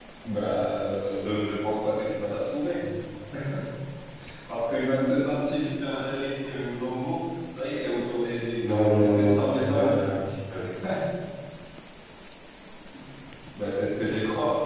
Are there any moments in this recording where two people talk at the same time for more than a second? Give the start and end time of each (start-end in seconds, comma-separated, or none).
8.7-10.0